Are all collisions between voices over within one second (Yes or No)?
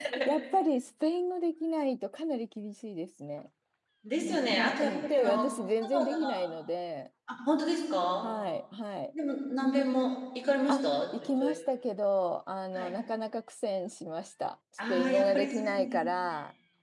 No